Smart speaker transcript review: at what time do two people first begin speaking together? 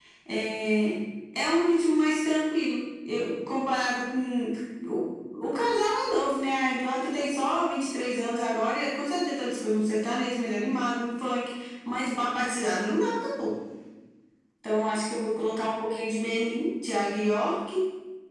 none

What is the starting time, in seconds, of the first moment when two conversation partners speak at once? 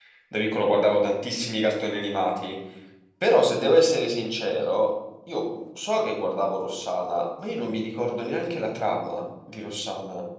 none

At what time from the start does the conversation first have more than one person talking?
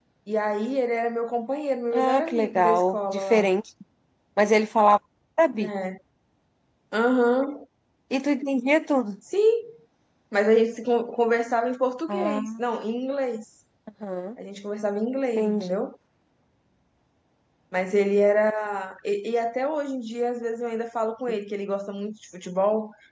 1.9 s

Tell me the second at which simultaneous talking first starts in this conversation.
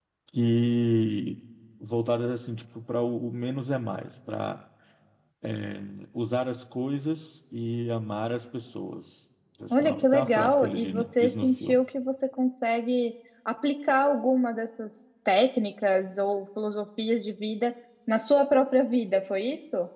9.7 s

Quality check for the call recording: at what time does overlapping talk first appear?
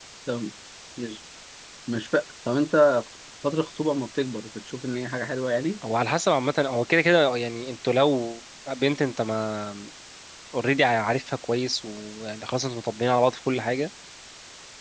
none

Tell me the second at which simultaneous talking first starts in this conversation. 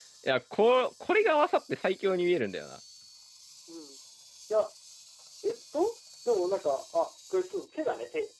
none

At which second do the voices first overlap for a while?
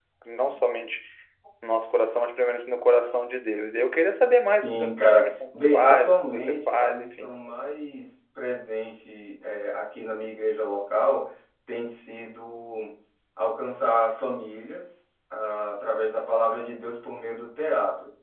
4.4 s

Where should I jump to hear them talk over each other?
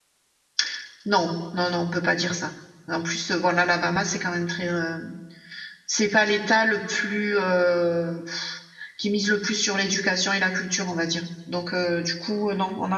none

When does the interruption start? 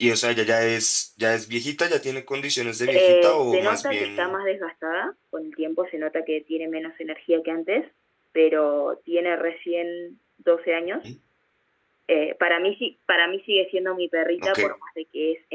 2.9 s

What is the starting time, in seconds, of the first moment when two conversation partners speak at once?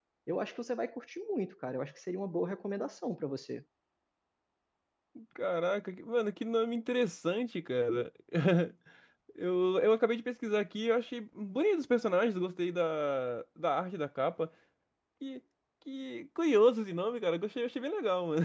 none

